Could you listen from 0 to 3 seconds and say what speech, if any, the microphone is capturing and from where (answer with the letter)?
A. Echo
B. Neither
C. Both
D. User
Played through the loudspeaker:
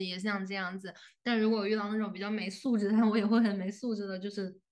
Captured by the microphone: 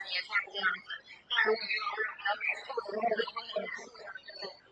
A